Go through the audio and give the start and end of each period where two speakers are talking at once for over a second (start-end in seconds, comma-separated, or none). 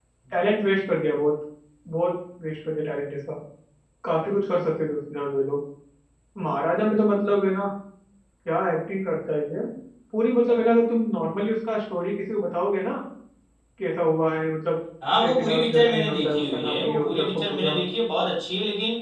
15.2-17.8